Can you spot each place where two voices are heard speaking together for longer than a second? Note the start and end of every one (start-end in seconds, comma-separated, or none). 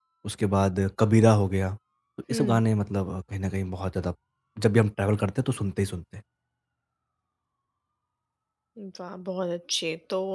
none